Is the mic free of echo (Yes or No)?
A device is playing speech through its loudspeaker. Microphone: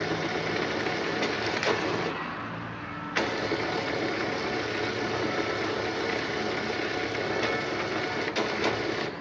Yes